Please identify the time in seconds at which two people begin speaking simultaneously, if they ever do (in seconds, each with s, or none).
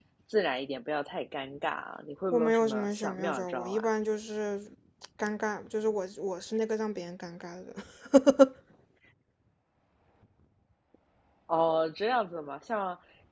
2.3 s